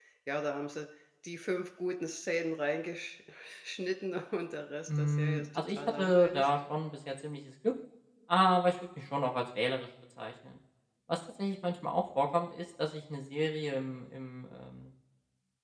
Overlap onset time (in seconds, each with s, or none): 4.9 s